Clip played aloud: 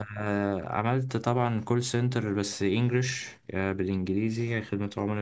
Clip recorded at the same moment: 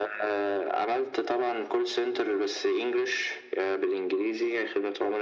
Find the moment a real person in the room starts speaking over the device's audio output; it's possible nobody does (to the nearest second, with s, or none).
none